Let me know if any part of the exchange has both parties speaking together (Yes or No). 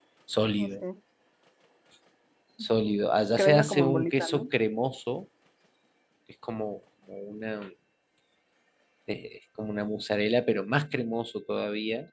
Yes